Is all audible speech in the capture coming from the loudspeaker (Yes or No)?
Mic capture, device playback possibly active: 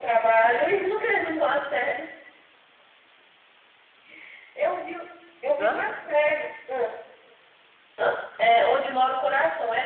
No